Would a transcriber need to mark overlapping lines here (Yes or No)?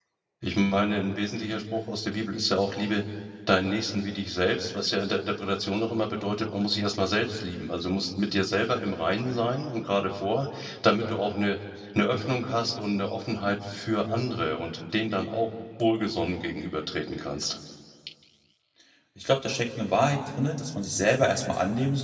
No